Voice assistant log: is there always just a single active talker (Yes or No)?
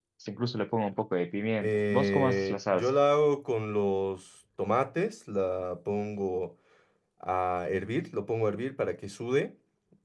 No